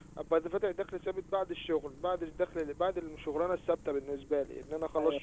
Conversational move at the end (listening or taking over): taking over